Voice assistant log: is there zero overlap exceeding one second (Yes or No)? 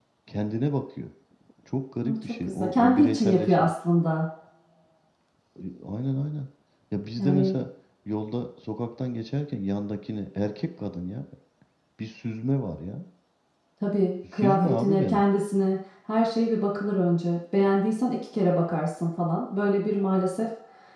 No